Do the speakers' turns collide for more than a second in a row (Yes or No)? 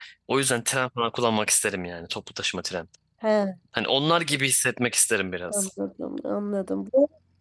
No